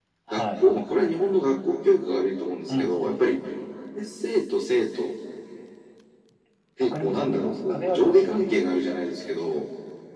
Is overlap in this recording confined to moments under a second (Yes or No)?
No